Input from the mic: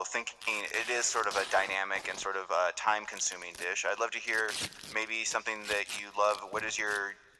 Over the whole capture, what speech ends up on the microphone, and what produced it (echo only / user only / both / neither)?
echo only